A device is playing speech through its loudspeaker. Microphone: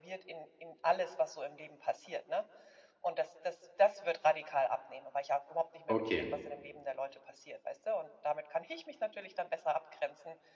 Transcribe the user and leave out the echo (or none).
okay.